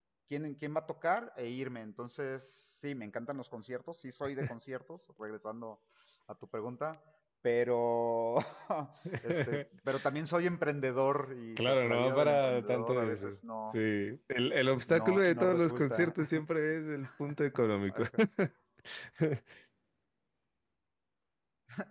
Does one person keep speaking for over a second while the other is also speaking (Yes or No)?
Yes